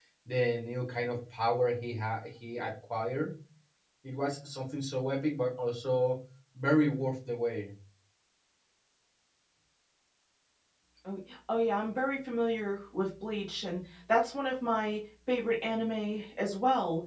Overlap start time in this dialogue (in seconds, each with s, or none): none